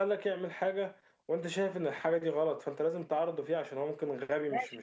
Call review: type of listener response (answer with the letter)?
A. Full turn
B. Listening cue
A